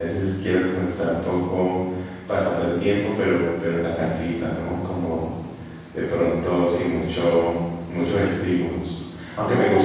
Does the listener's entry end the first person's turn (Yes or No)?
No